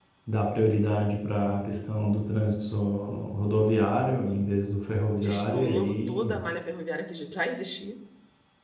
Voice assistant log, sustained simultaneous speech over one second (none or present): present